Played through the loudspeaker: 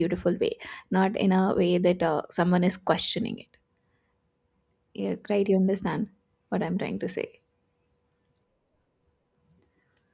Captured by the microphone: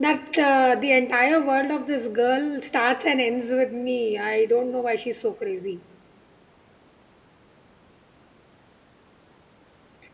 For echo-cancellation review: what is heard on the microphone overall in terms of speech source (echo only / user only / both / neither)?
user only